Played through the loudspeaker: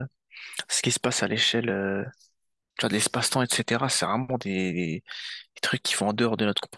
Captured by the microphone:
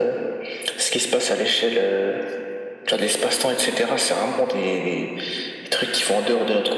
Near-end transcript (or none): none